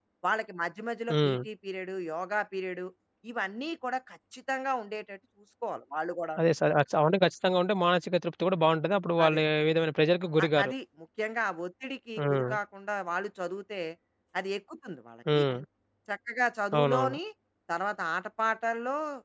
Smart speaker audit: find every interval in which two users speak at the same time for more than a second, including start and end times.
none

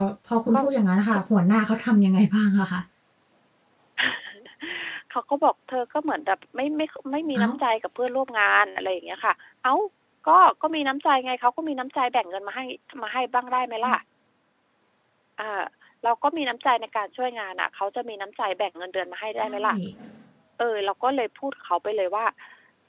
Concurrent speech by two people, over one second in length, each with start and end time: none

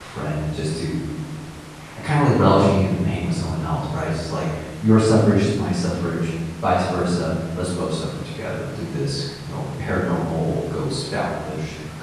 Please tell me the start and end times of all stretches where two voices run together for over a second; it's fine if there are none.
none

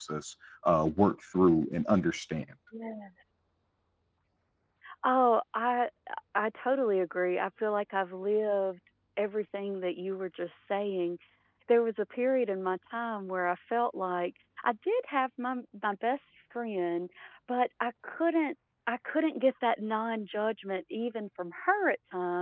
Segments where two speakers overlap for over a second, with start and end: none

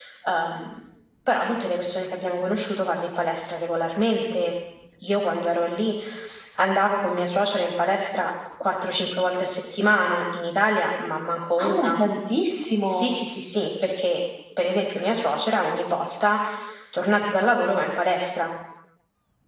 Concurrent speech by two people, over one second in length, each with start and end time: none

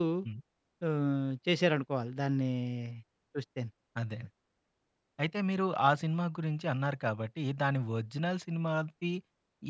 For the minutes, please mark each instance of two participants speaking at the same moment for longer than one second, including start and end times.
none

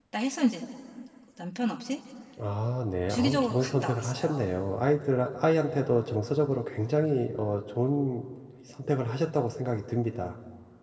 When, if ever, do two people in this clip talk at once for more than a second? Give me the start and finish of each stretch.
3.1-4.5

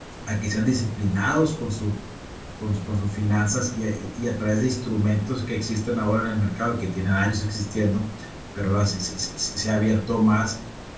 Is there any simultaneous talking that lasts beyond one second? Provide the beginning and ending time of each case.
none

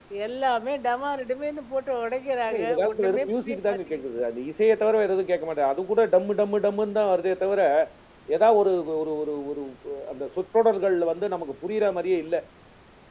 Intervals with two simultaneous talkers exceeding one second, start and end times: 2.5-4.0

